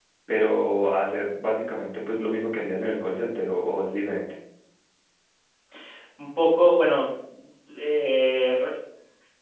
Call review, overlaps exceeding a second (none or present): none